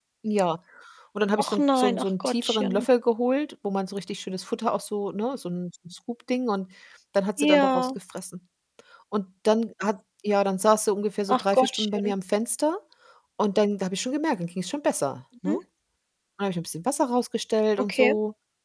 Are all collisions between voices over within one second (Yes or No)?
No